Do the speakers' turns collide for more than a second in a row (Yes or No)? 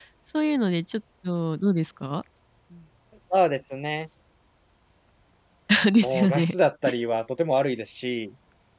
No